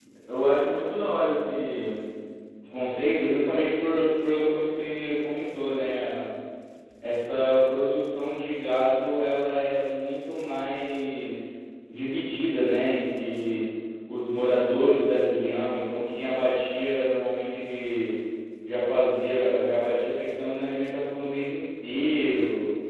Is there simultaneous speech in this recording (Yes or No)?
No